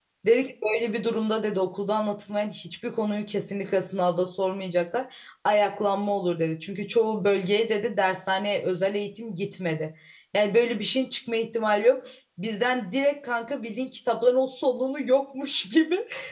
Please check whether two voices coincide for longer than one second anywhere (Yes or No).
No